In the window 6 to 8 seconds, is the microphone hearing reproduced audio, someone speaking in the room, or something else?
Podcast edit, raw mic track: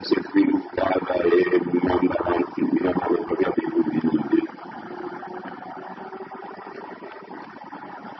neither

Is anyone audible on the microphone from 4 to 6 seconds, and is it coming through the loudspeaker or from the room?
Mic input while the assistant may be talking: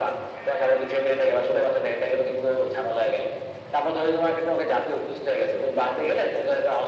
echo only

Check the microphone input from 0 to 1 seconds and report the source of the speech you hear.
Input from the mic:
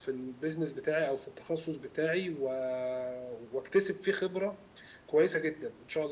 echo only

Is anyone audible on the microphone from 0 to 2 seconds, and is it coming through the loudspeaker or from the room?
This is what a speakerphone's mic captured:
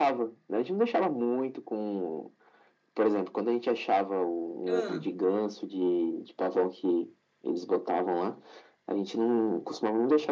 echo only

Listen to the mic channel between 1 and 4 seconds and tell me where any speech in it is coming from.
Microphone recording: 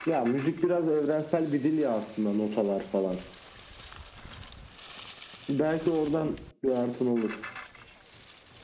echo only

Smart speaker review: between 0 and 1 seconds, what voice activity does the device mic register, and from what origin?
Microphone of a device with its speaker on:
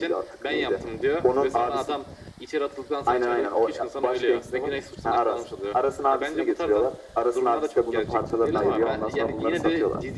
echo only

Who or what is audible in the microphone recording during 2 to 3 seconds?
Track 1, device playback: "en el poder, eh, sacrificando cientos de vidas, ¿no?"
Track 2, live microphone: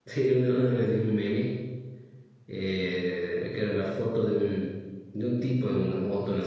user only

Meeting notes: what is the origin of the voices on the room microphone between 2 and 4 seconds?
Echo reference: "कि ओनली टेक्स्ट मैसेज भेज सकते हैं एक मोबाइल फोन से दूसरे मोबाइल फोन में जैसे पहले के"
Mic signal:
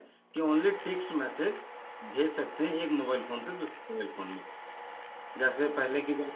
echo only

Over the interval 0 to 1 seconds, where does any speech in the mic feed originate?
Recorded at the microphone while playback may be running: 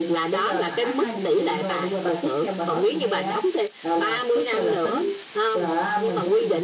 echo only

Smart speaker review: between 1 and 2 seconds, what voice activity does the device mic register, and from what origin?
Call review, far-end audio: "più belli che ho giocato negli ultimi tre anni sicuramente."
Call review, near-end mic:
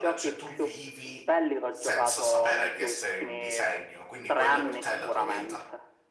both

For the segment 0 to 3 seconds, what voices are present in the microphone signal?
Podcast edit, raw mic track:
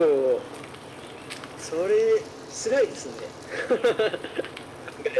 echo only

